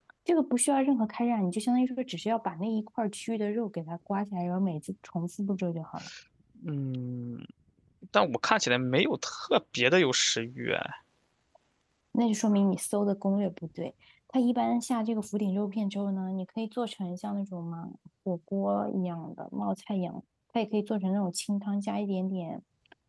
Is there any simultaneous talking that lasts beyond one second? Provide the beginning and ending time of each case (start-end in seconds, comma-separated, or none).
none